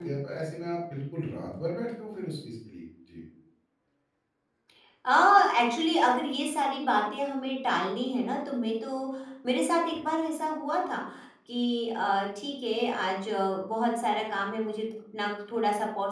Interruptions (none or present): none